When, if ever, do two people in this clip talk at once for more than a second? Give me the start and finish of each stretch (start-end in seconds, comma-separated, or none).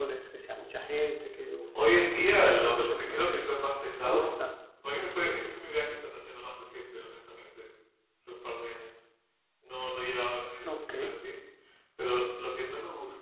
2.0-3.5